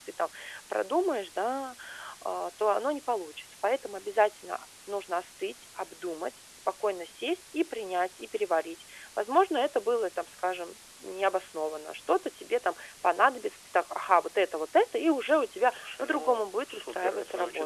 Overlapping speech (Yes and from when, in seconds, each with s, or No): Yes, from 15.7 s